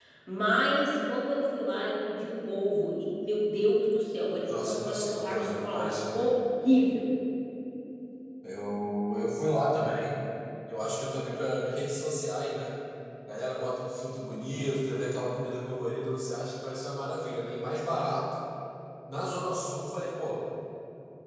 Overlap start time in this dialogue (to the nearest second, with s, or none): 5 s